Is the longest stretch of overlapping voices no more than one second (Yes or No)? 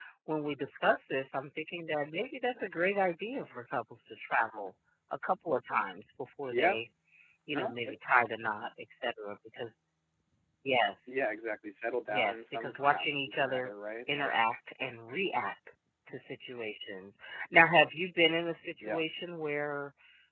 No